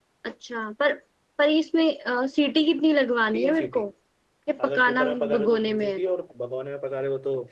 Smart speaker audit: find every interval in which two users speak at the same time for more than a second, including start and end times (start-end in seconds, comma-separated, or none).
4.6-6.0